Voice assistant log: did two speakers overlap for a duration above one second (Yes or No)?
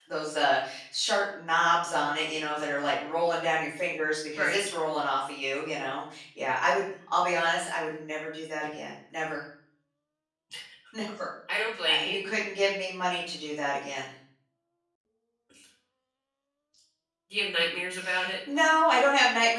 No